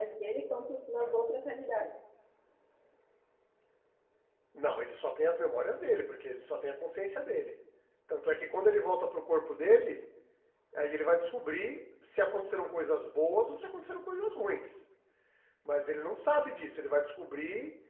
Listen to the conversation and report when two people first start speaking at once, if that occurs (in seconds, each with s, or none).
none